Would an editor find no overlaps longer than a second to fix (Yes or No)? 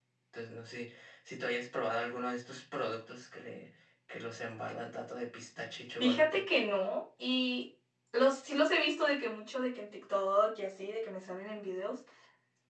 Yes